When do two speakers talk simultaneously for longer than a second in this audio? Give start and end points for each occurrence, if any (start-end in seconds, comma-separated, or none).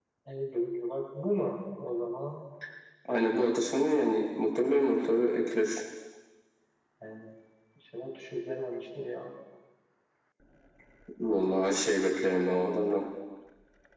none